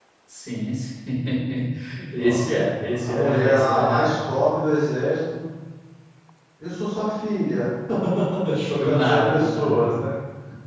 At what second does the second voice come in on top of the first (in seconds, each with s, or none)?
2.2 s